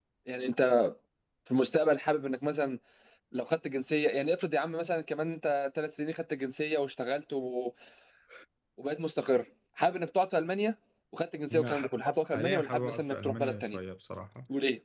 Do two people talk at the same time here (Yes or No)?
Yes